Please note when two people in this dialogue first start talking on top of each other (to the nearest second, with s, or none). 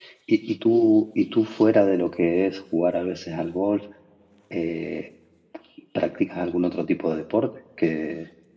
none